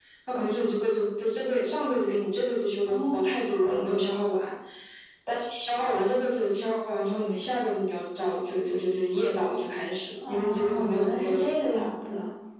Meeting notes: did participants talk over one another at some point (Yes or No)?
Yes